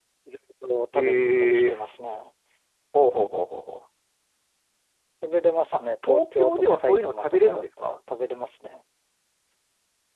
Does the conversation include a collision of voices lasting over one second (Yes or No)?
Yes